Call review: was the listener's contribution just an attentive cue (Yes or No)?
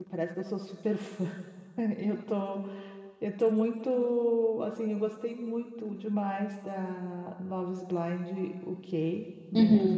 Yes